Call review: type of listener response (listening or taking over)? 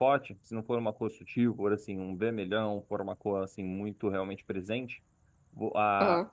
listening